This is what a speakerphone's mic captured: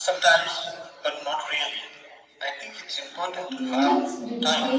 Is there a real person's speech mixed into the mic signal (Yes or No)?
Yes